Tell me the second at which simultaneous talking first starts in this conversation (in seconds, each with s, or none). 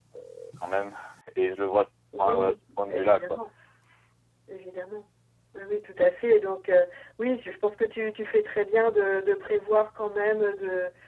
2.2 s